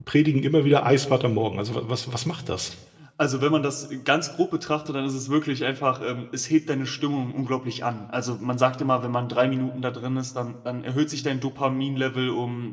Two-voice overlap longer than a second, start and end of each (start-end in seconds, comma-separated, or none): none